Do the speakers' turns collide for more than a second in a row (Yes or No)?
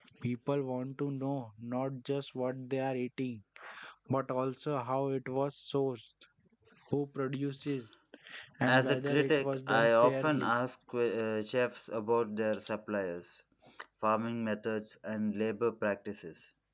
Yes